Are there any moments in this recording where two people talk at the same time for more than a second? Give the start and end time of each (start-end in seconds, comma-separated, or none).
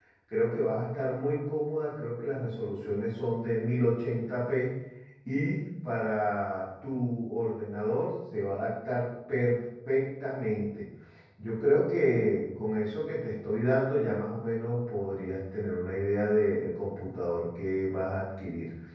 none